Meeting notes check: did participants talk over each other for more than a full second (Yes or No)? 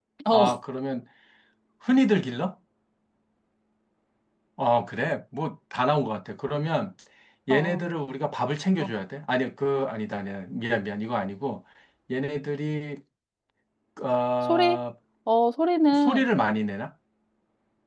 No